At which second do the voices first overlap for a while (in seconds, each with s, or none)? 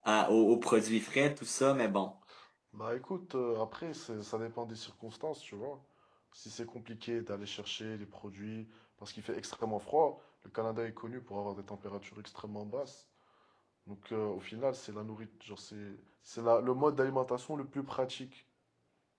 none